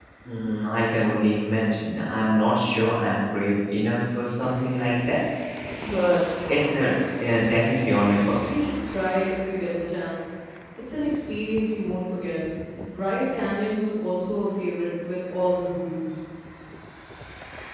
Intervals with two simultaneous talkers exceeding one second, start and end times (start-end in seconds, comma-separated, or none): none